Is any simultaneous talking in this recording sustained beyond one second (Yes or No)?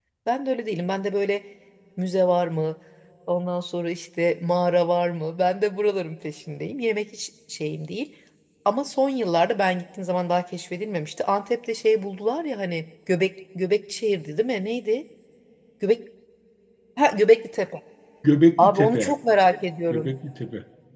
No